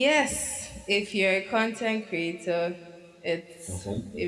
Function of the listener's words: listening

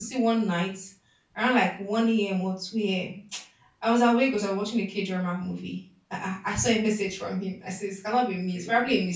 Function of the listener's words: listening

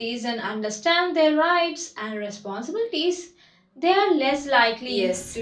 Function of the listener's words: taking over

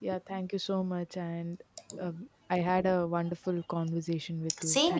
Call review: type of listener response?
taking over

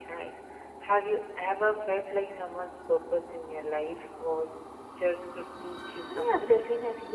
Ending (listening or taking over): taking over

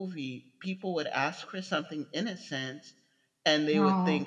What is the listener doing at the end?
listening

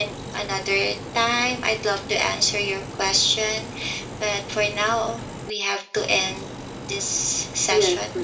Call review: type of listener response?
taking over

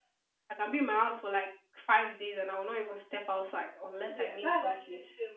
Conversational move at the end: taking over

